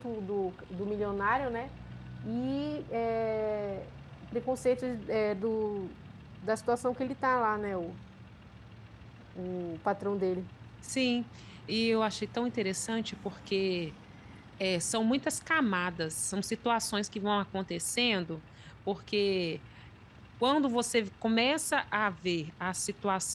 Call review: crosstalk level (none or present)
none